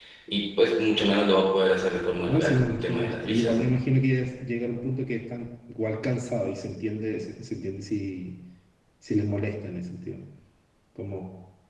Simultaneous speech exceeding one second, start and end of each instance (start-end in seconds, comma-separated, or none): 2.3-3.7